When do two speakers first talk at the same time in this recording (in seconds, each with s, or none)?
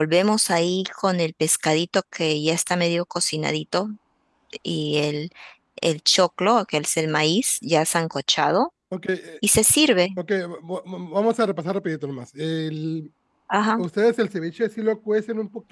none